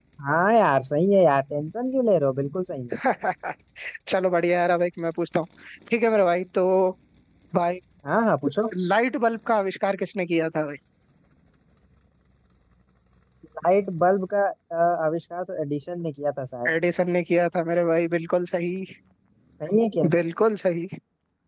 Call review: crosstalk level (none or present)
none